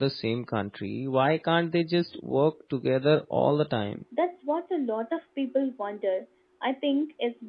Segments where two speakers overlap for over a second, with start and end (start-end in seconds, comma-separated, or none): none